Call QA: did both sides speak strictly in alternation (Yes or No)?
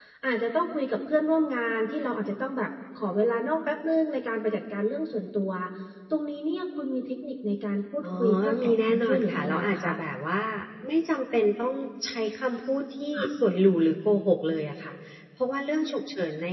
No